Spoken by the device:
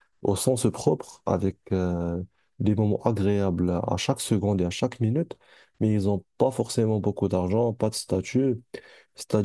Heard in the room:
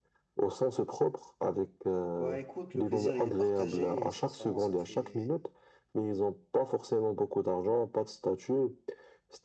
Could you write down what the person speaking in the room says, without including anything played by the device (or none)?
Bah écoute, le plaisir il est partagé et sincèrement ça me fait